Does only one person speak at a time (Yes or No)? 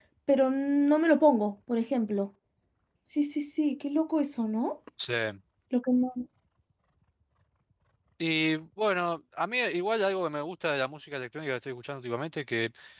Yes